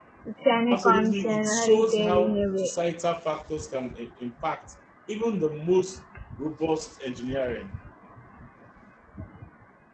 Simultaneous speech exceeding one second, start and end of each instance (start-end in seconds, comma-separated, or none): 0.7-2.8